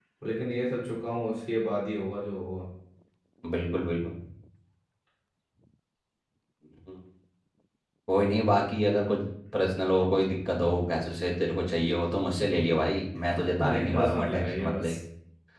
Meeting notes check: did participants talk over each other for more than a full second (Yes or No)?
Yes